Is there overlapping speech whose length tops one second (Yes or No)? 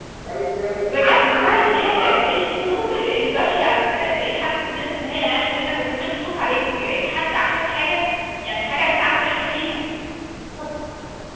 Yes